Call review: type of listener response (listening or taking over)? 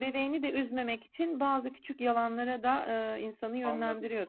taking over